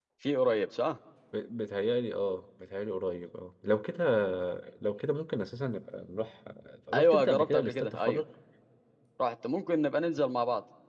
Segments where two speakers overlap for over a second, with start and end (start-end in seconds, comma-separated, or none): 6.9-8.2